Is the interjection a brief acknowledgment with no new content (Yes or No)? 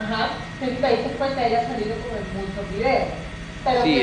Yes